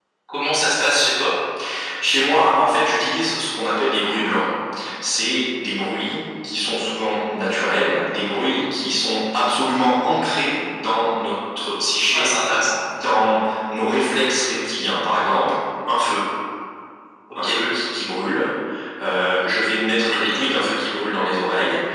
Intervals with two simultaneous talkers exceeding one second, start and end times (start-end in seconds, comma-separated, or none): none